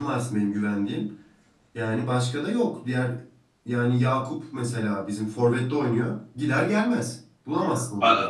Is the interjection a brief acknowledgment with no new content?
No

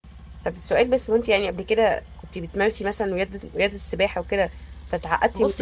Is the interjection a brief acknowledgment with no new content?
No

